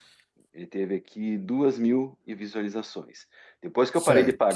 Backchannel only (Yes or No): Yes